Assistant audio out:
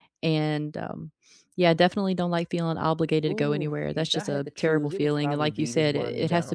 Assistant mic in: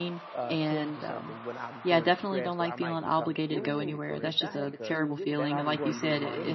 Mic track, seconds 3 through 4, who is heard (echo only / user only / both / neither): both